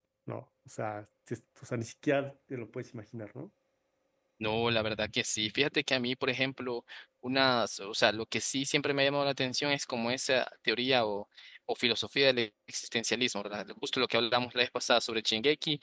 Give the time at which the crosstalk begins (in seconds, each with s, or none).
none